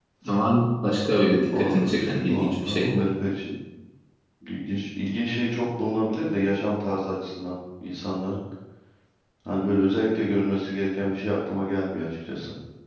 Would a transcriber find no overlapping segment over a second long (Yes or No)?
No